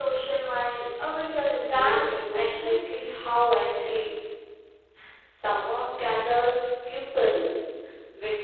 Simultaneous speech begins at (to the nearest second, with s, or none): 2 s